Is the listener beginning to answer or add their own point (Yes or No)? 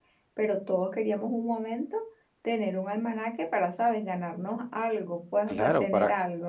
Yes